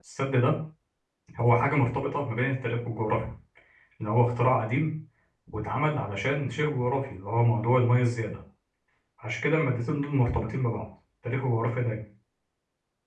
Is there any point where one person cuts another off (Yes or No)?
No